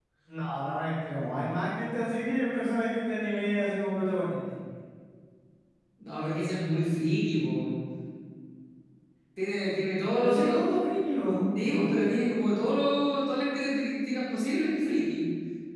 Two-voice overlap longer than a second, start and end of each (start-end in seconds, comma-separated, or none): none